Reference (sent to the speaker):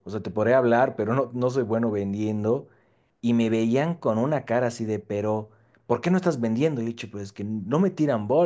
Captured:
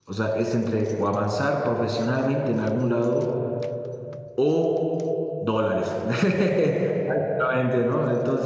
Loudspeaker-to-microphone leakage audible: No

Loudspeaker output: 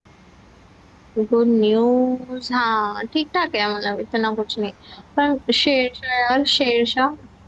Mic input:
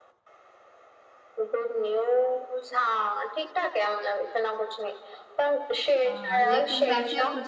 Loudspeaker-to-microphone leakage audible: Yes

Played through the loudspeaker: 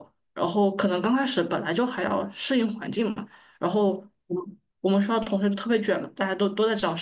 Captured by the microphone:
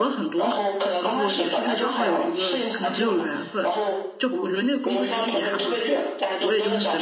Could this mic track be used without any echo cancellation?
No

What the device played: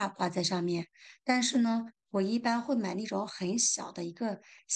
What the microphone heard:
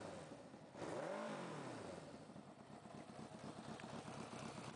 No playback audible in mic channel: Yes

